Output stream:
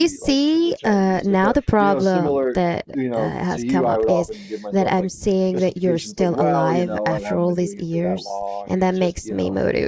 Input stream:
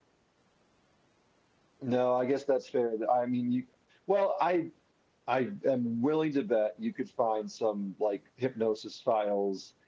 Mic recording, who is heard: user only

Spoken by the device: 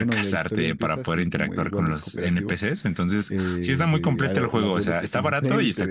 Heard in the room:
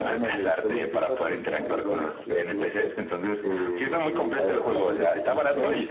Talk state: both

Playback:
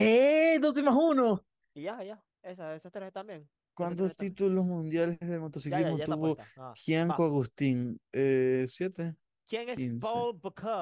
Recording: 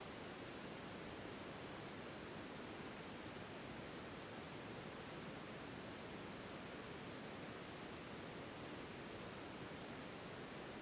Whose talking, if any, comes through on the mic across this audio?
neither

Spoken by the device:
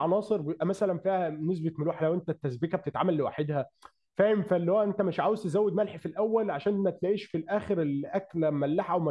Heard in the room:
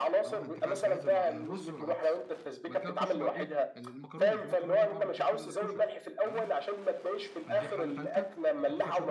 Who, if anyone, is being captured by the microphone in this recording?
both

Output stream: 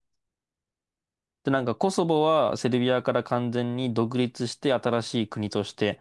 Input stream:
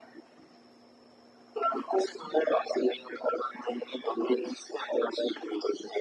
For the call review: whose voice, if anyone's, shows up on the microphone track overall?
echo only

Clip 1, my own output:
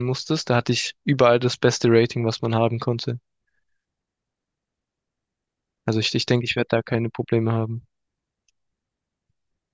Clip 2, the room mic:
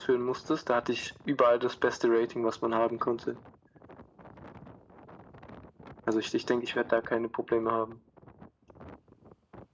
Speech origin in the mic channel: echo only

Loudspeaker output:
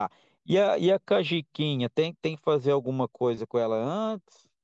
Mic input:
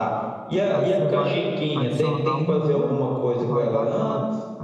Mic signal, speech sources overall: both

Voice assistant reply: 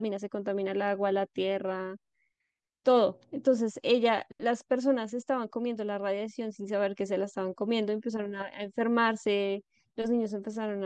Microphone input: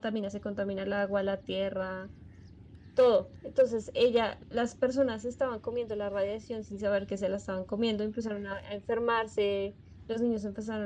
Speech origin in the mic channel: echo only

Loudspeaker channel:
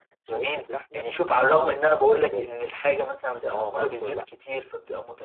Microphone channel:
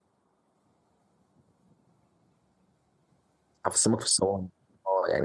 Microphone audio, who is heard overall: user only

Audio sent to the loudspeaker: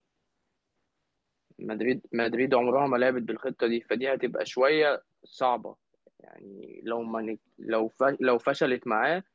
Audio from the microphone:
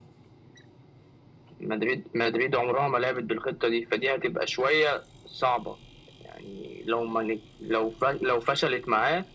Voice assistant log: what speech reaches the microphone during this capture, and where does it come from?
echo only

